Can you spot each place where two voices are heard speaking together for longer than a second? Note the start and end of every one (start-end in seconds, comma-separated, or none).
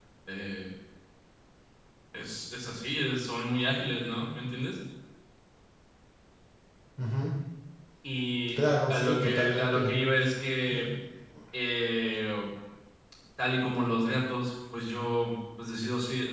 8.6-9.9